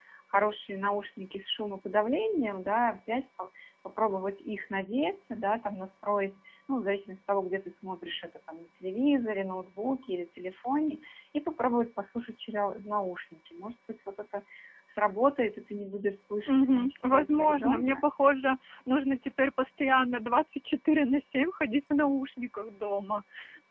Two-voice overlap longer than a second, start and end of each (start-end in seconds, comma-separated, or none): 16.5-18.0